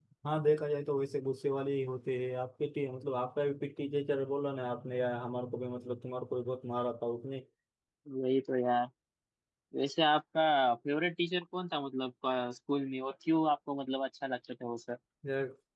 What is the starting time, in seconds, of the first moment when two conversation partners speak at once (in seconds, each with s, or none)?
none